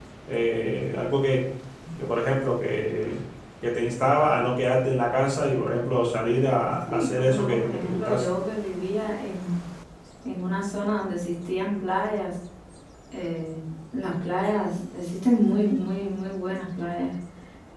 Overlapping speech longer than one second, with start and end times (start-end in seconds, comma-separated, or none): 6.9-8.3